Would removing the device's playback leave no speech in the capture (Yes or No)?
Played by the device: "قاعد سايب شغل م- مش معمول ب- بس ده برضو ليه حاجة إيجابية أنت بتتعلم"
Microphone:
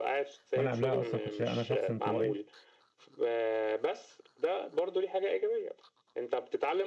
No